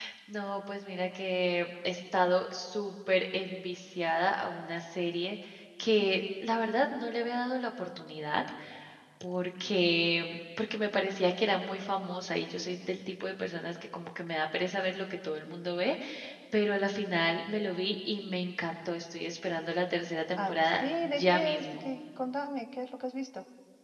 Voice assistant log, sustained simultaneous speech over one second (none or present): present